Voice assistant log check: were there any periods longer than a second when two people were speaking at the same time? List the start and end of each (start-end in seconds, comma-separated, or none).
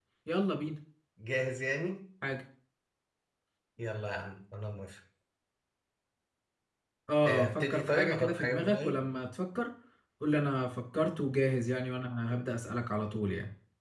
7.2-9.0